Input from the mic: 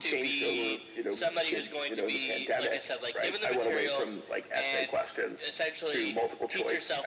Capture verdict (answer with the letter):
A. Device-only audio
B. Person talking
A